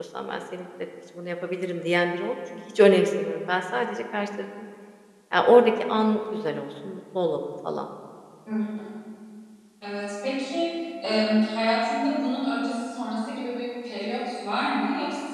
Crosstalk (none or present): none